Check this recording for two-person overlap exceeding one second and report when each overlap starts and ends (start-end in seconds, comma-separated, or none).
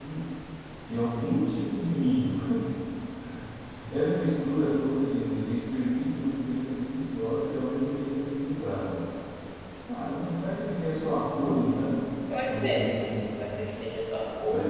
none